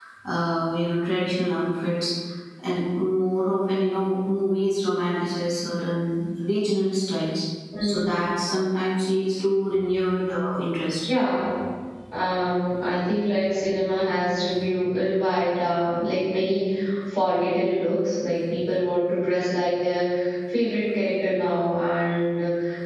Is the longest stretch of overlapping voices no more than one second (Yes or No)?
Yes